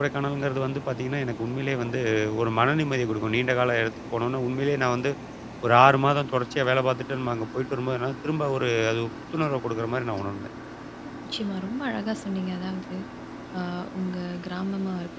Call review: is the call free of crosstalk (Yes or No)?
Yes